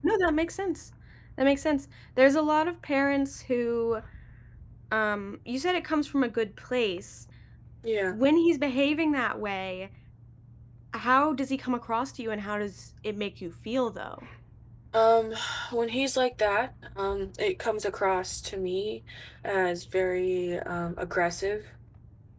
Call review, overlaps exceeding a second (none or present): none